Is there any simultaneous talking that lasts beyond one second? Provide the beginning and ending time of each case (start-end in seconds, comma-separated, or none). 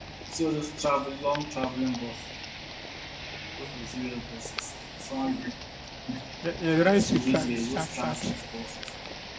6.8-8.4